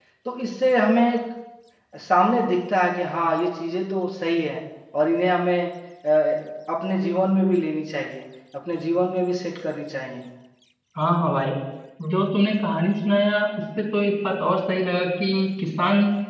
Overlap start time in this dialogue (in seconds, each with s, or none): none